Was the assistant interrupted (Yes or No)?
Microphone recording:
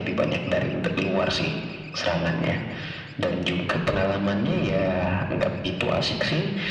No